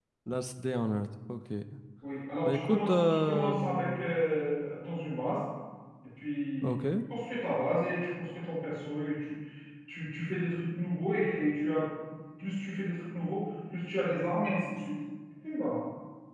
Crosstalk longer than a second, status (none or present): present